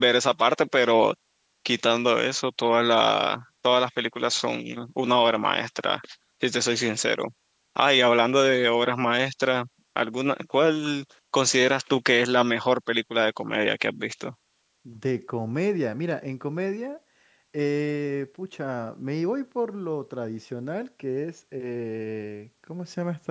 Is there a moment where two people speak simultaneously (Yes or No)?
No